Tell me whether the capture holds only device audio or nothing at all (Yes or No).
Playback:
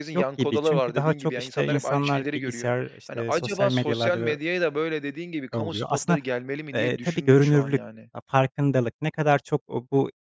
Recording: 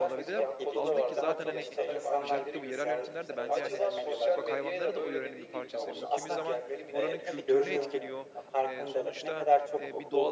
No